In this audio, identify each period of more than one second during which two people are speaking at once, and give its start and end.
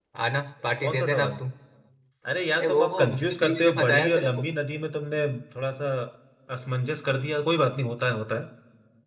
2.6-4.4

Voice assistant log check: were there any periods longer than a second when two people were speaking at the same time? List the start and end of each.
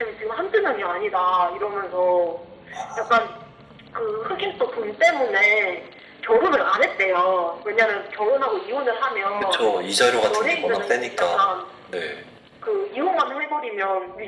10.3-11.6

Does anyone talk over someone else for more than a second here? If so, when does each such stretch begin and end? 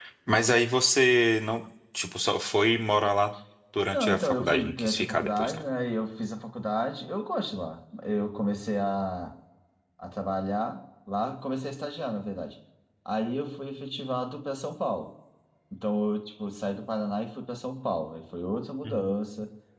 3.9-5.6

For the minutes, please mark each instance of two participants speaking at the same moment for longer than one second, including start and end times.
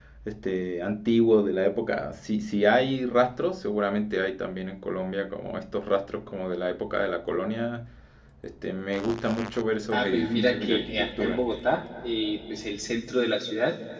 9.9-11.4

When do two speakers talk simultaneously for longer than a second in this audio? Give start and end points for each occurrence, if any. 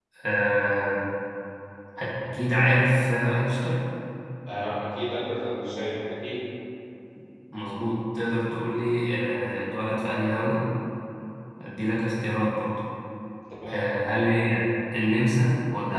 none

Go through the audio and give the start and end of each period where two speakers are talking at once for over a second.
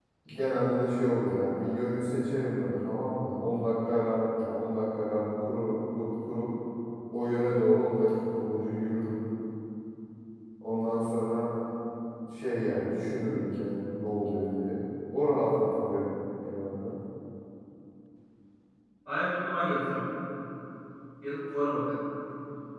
none

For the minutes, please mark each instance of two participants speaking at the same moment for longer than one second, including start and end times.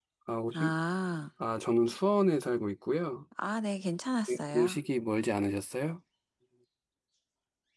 none

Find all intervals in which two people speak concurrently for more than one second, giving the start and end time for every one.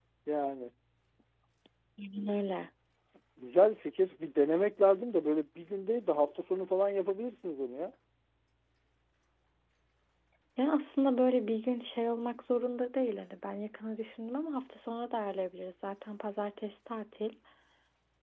none

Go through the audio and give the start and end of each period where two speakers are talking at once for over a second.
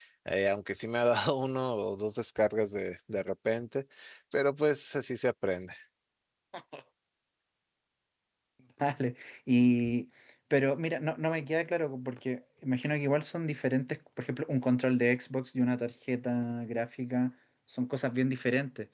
none

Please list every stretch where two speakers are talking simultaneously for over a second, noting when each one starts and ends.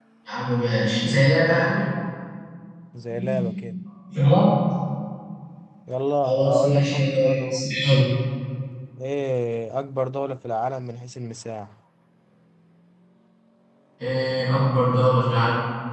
6.2-7.6

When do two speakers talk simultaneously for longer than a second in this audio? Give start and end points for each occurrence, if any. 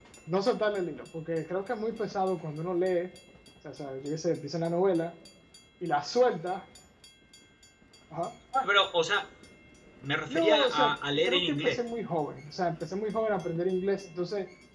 10.3-11.8

